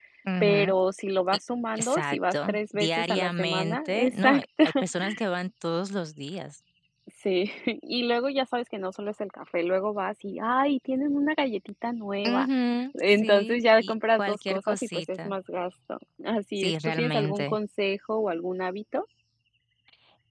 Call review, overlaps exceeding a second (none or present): present